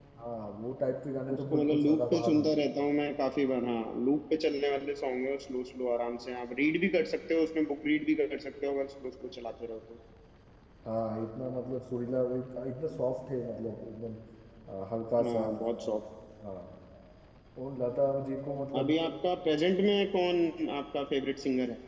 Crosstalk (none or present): present